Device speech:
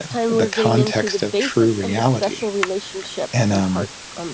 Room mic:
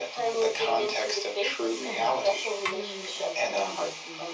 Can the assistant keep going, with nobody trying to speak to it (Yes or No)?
No